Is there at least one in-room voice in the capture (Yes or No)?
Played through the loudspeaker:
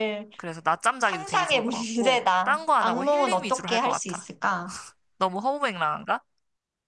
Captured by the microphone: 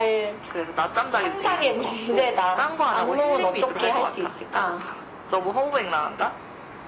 No